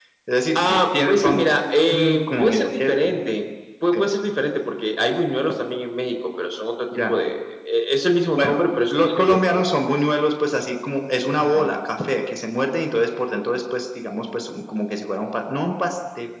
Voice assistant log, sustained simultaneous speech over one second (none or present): present